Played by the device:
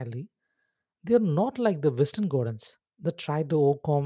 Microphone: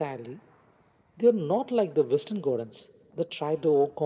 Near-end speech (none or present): none